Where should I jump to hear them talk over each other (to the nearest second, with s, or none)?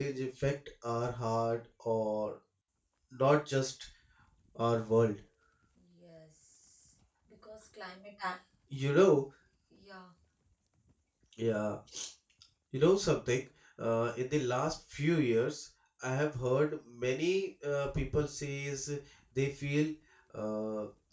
none